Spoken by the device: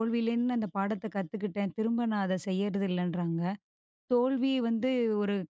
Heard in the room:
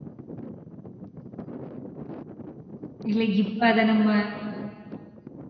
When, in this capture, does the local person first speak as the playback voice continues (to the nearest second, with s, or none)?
3 s